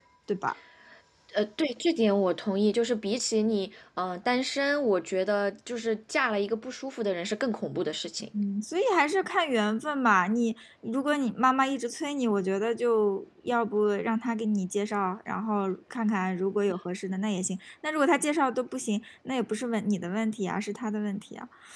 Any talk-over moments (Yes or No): No